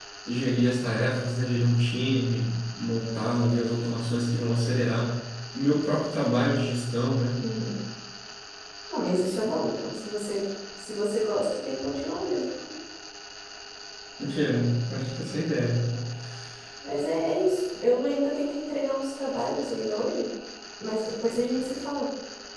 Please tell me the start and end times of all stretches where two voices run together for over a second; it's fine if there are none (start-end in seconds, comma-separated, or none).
none